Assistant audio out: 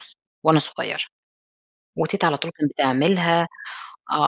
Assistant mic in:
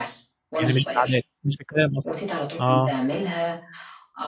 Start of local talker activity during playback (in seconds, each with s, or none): 0.6 s